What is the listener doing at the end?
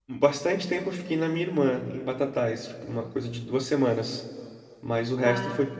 listening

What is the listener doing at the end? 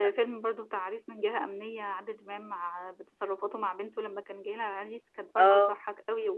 listening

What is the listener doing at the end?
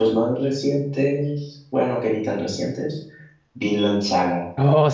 taking over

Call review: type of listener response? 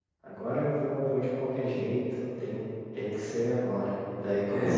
listening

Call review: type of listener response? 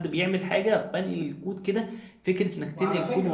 listening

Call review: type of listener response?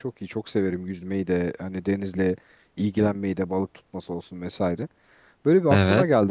listening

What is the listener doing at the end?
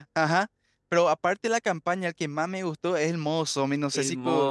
taking over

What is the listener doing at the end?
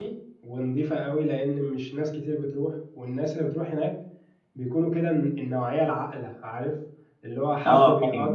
listening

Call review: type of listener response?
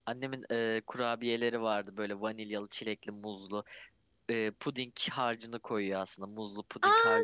taking over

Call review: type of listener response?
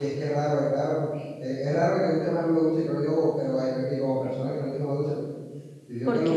listening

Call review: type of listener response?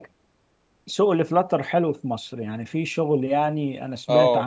taking over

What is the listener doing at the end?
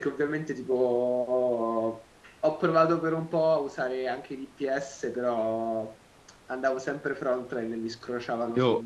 taking over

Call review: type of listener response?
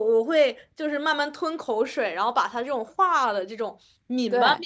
listening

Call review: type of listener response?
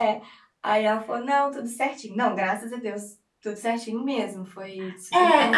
taking over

